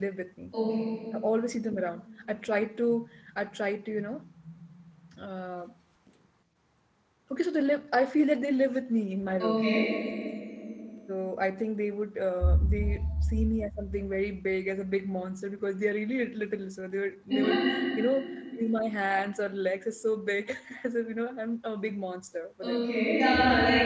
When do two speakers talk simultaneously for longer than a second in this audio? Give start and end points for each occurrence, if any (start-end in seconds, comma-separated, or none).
none